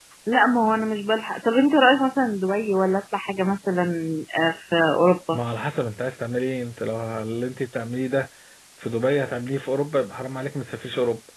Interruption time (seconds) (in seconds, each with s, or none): none